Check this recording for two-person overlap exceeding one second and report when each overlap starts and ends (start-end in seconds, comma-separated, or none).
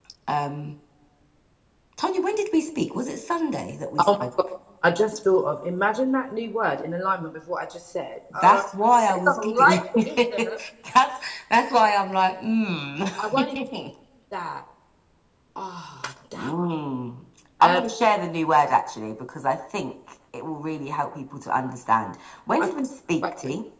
9.1-10.5